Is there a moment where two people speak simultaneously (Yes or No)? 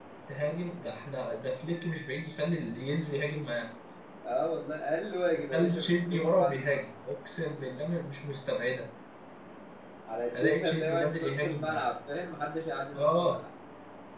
Yes